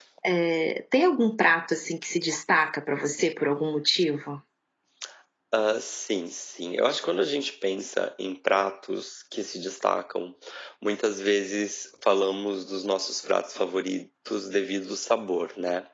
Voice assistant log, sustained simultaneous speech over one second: none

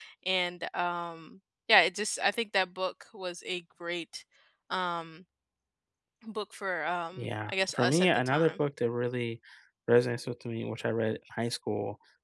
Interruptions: present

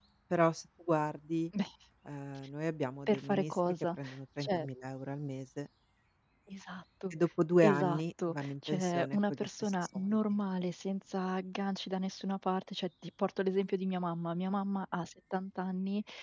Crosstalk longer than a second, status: present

